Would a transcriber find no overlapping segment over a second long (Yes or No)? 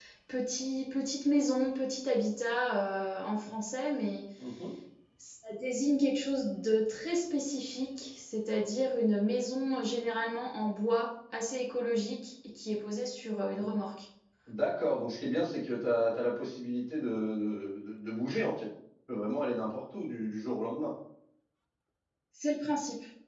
Yes